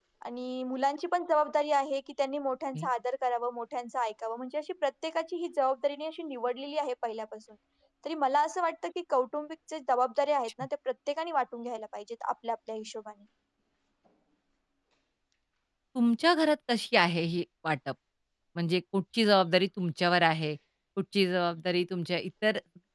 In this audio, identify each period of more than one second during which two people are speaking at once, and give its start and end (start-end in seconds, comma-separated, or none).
none